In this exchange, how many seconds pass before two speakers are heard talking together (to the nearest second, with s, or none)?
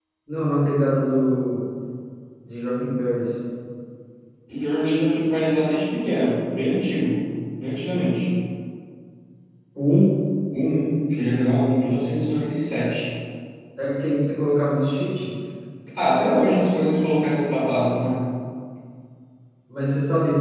none